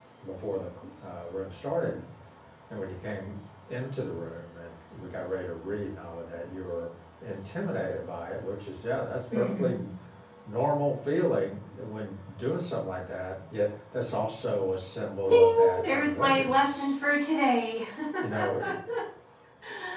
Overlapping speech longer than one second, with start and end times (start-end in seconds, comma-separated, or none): 15.3-16.8